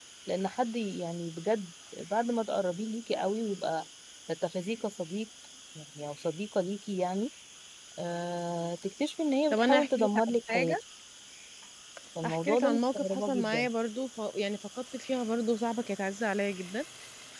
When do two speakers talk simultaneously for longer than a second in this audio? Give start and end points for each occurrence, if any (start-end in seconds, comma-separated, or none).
9.5-10.8, 12.2-13.7